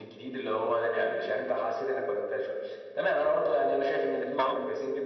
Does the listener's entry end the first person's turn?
No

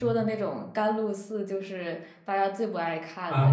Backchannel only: No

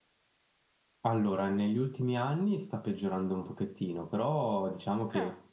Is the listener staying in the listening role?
Yes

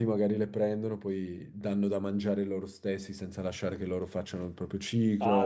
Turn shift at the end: Yes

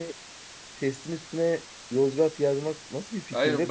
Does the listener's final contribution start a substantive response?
Yes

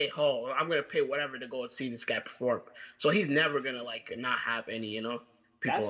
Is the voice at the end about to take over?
Yes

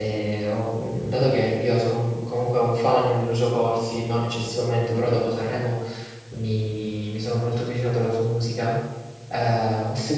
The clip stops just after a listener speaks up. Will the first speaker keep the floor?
Yes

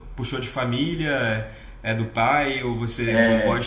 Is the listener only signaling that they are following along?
Yes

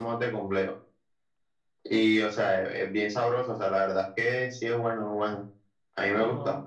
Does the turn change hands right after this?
No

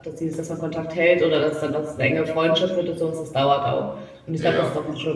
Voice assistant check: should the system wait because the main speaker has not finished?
Yes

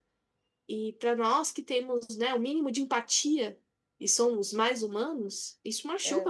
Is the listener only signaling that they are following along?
Yes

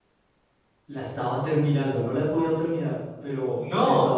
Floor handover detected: No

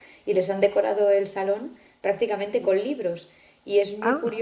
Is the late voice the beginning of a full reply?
No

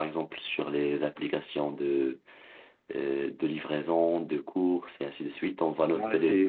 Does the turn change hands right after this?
Yes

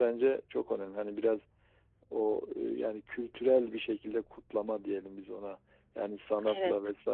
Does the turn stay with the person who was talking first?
Yes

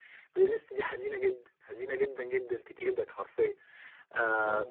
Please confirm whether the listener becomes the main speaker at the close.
No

